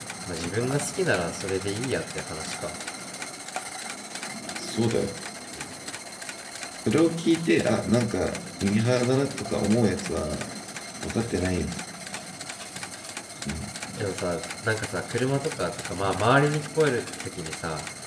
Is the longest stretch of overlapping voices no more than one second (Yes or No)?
Yes